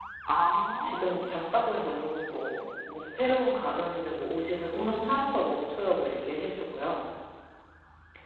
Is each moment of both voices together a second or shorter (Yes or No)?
Yes